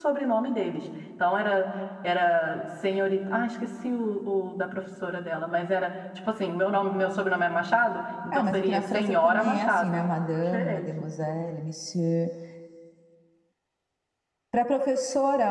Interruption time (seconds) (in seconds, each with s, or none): 8.3 s